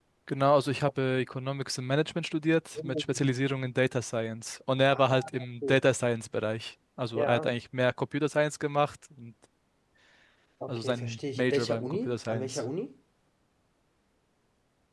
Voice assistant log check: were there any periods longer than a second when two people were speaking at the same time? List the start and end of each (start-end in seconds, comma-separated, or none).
10.7-12.6